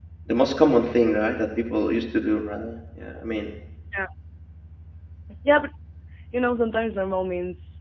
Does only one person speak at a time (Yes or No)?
Yes